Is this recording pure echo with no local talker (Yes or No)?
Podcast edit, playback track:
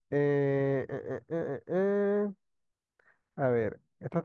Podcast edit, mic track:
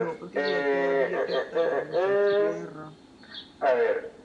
No